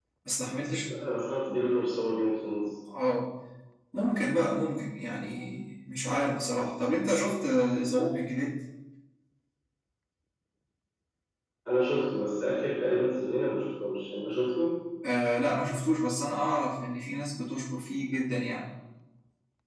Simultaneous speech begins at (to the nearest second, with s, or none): none